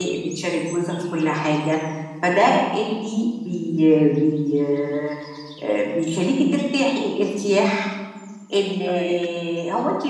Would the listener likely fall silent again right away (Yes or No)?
Yes